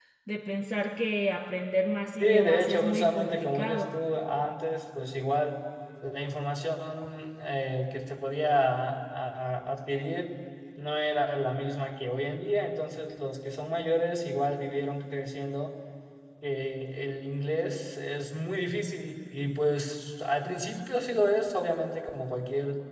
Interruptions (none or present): present